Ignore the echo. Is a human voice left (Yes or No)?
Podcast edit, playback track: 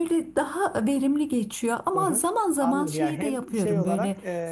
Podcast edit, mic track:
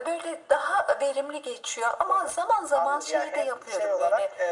No